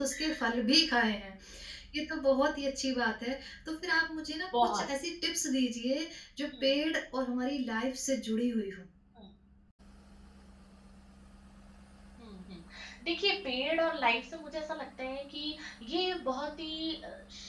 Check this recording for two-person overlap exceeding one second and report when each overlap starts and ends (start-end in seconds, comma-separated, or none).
none